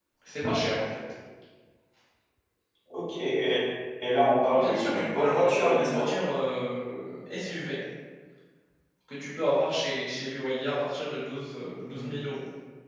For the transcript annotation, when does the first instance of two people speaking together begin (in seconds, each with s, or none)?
4.5 s